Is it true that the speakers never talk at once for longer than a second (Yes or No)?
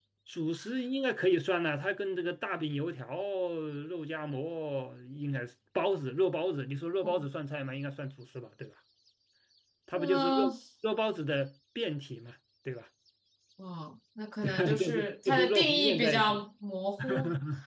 No